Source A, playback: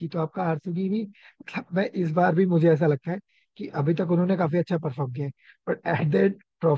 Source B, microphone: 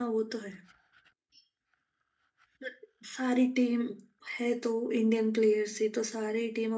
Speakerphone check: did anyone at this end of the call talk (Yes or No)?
Yes